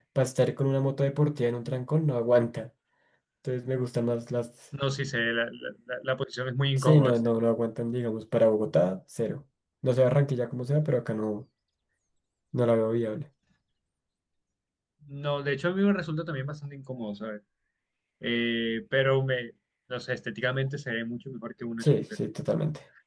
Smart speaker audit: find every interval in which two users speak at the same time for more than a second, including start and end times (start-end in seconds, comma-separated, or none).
none